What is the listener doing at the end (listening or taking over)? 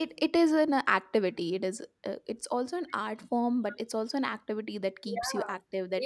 taking over